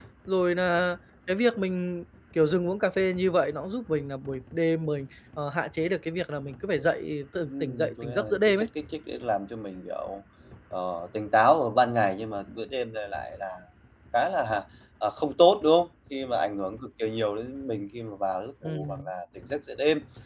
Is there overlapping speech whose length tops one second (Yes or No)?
Yes